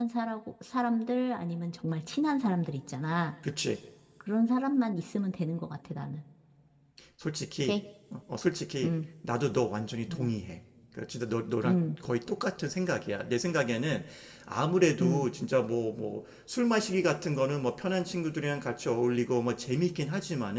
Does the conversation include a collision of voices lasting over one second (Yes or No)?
No